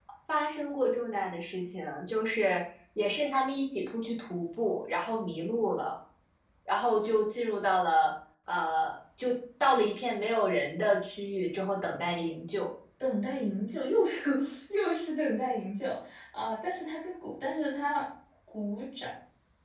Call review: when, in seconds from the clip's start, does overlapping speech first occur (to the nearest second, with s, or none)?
none